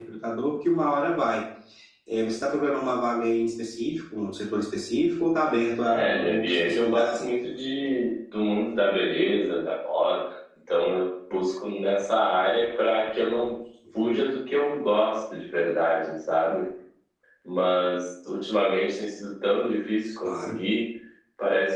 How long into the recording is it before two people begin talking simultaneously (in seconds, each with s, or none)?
5.9 s